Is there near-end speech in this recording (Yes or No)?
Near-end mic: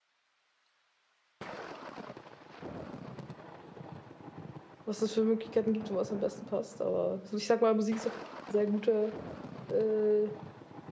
Yes